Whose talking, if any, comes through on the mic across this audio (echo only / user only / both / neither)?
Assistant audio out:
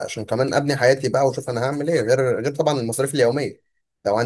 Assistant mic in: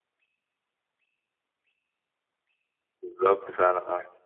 user only